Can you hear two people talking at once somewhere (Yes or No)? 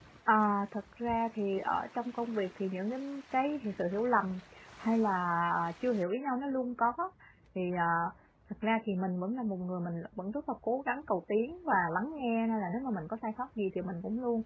No